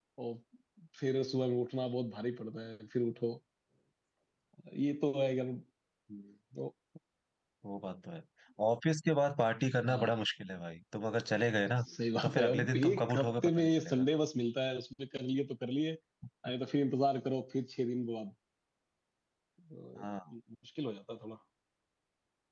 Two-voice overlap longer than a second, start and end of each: 12.2-14.1

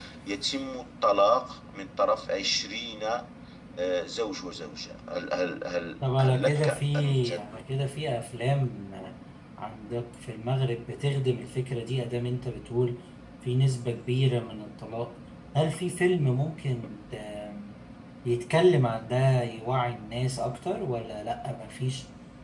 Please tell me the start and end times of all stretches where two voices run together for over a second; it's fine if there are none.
6.2-7.4

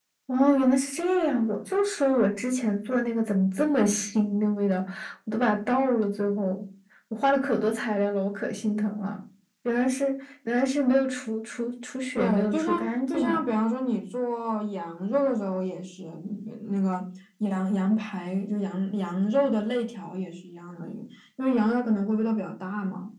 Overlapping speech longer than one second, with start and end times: 12.2-13.5

